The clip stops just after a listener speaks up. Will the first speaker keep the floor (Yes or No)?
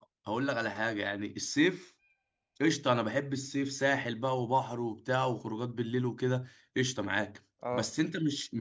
Yes